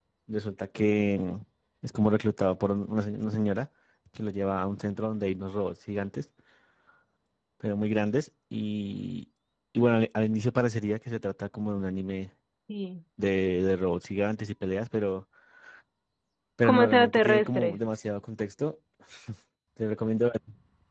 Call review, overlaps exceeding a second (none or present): present